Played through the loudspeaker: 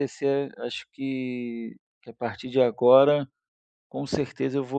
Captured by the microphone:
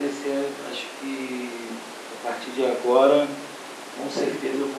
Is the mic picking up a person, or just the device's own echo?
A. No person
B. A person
A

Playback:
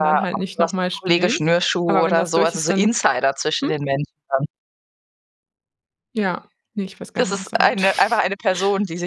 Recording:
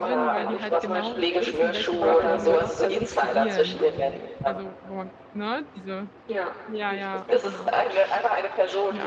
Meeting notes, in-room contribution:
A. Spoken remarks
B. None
A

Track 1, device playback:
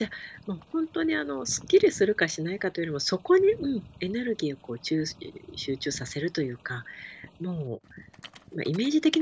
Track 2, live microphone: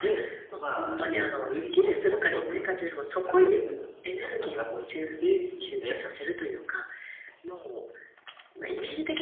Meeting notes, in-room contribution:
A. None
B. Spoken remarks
B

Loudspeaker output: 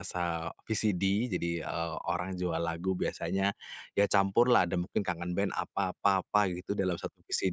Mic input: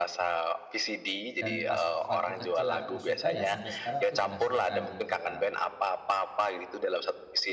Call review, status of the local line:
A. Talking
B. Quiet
A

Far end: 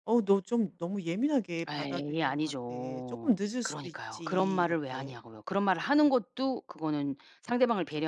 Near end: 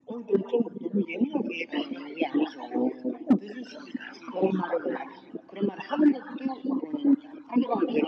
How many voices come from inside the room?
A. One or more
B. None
B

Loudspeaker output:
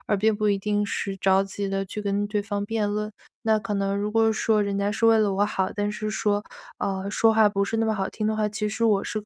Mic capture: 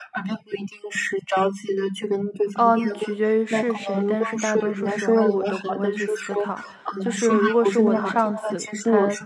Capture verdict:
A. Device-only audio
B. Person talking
B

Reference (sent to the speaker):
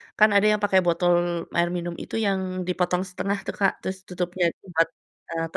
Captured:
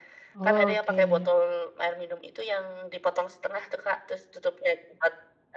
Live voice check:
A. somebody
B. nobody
A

